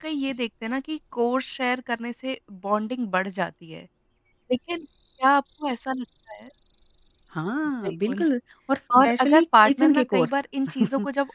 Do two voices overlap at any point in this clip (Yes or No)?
Yes